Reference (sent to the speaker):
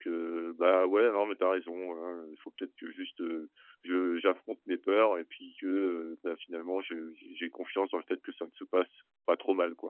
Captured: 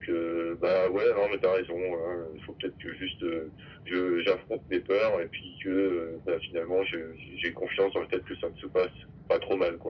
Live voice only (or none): none